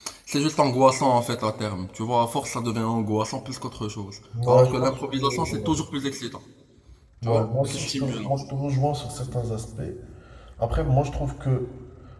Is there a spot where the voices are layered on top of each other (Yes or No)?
Yes